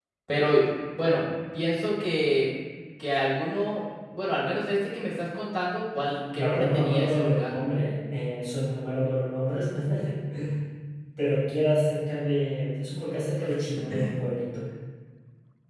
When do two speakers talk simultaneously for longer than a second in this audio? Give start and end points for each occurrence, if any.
6.4-7.6

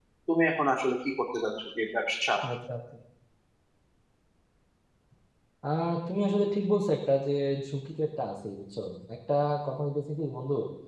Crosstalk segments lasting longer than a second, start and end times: none

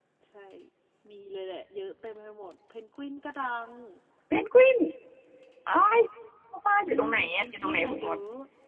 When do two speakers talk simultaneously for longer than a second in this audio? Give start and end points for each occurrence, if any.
6.8-8.2

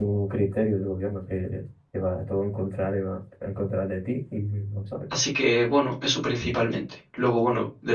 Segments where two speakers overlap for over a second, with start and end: none

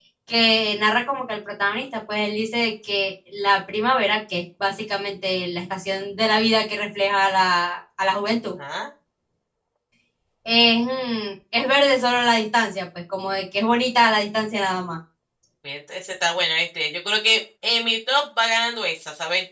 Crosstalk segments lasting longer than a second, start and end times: none

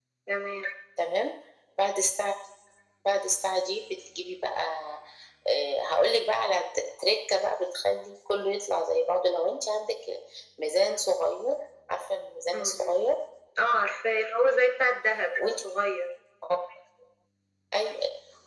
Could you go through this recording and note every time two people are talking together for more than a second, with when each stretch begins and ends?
none

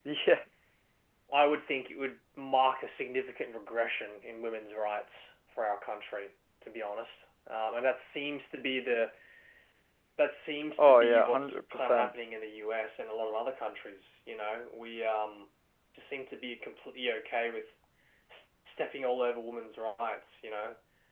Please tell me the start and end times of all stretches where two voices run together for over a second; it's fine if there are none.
10.8-12.1

